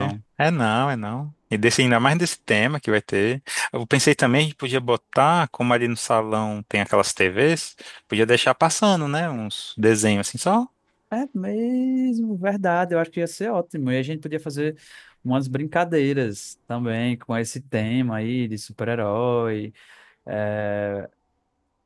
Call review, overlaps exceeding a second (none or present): none